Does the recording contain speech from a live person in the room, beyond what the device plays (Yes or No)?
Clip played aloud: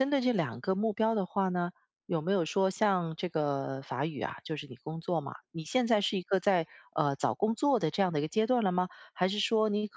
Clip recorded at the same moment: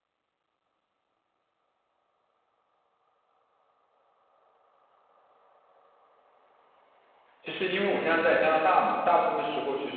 Yes